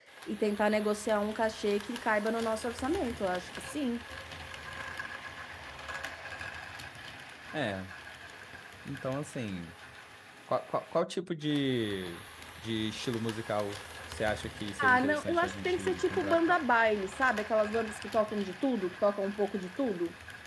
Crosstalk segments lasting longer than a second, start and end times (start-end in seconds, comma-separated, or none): 14.8-16.6